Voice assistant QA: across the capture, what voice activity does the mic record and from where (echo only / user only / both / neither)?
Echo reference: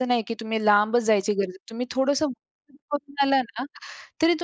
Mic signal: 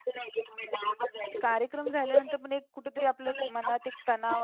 both